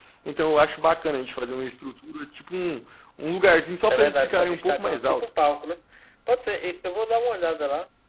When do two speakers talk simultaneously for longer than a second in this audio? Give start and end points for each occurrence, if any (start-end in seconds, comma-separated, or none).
3.9-5.3